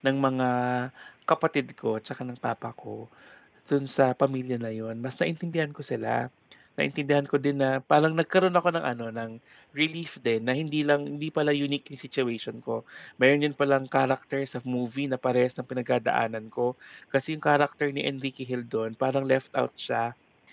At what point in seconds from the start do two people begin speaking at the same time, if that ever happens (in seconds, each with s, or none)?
none